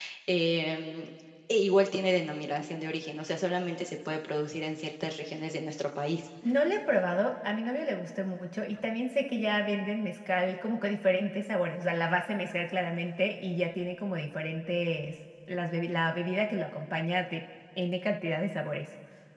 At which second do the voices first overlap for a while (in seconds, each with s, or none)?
none